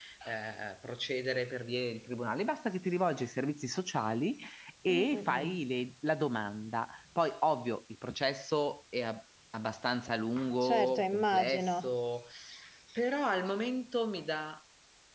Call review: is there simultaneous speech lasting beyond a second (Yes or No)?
Yes